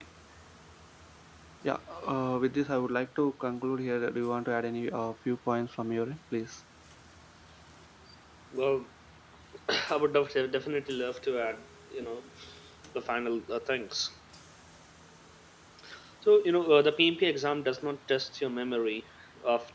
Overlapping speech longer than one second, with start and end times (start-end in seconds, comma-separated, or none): none